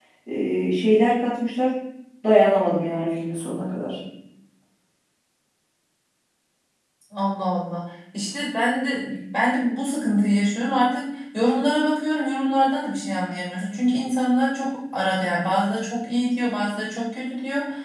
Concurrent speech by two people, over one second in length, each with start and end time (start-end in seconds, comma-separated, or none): none